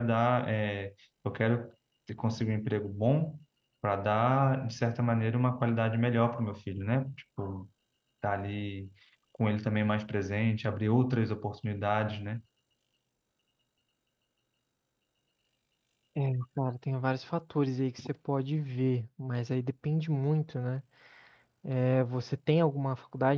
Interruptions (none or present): none